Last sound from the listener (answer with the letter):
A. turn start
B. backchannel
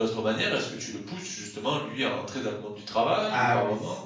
A